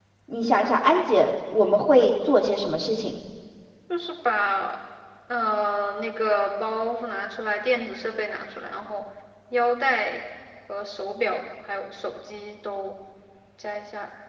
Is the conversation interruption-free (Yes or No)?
Yes